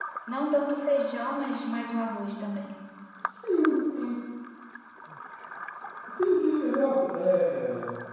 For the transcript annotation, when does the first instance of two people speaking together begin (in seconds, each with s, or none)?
none